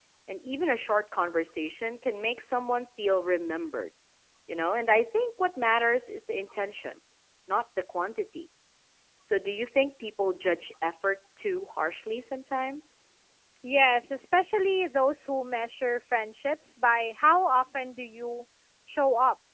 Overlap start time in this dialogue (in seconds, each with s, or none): none